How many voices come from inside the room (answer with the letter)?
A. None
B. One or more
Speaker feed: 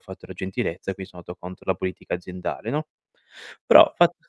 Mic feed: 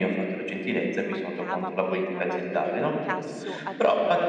B